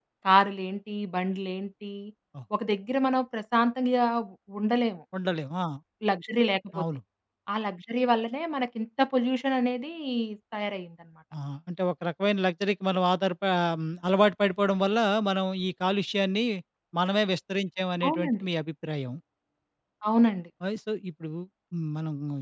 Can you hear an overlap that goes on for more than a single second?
No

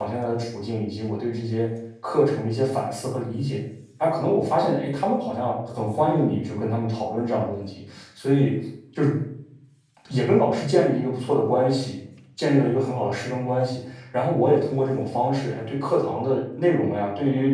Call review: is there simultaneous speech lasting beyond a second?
No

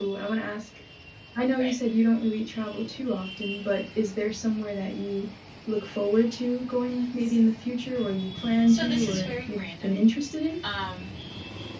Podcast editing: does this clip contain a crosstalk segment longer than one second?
Yes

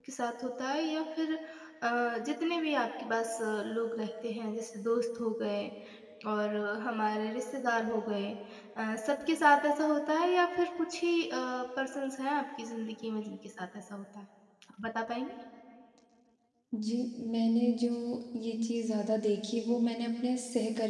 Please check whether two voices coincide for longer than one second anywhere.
No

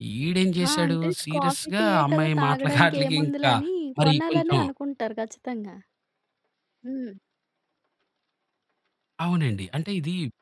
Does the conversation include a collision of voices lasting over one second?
Yes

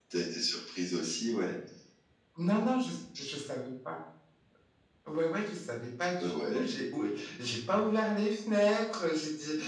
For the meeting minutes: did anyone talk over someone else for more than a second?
No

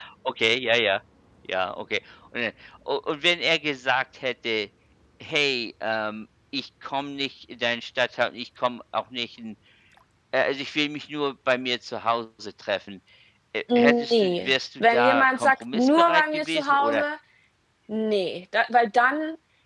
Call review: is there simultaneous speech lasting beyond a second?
Yes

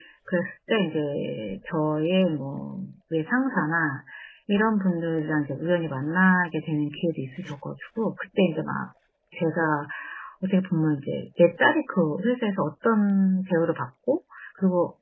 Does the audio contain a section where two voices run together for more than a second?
No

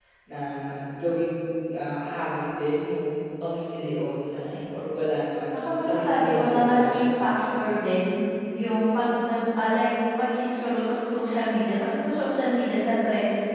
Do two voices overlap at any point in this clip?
Yes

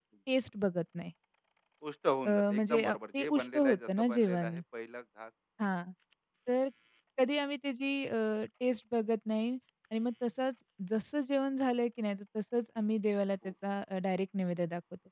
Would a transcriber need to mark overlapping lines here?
Yes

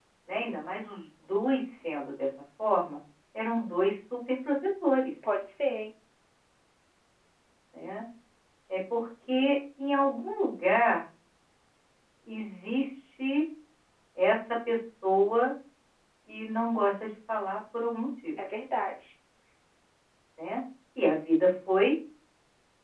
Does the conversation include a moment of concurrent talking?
No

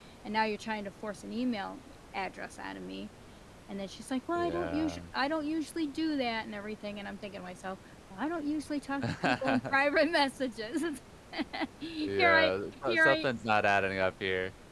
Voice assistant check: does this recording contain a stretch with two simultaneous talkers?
Yes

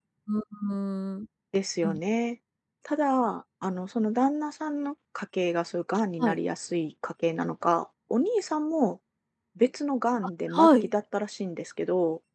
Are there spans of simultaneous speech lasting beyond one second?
No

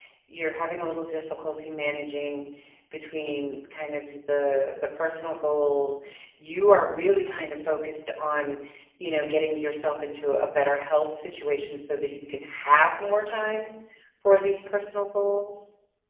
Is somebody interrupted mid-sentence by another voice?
No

